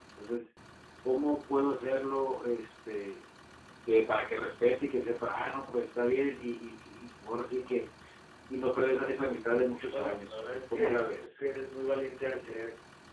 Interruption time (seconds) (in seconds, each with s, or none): 9.9 s